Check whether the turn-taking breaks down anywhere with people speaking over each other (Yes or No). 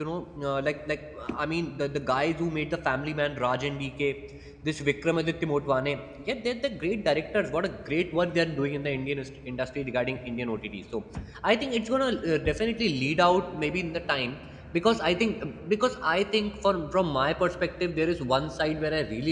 No